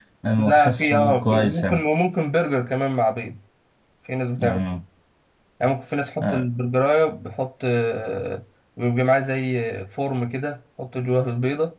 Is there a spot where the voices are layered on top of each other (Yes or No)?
Yes